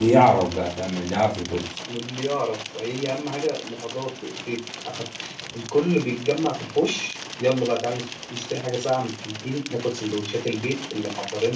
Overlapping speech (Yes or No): No